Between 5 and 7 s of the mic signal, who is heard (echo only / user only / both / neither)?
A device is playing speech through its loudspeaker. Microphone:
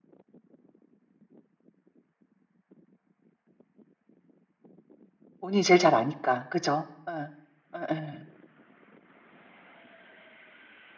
user only